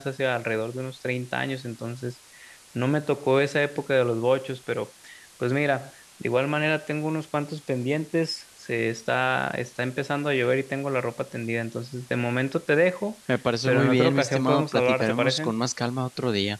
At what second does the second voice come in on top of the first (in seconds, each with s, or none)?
13.7 s